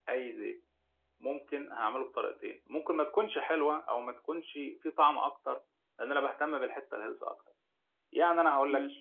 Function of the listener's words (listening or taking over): listening